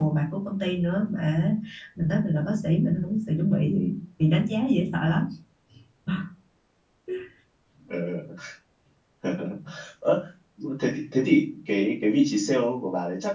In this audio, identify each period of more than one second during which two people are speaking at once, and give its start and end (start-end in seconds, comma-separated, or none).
none